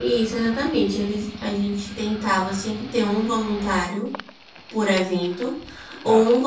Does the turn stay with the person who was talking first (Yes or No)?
Yes